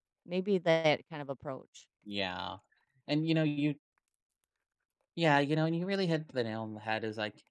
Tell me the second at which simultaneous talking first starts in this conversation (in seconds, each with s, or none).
none